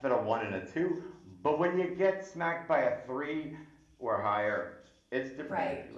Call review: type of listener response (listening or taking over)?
taking over